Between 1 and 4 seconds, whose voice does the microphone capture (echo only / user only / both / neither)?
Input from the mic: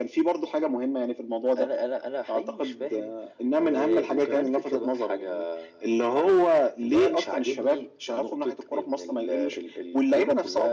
echo only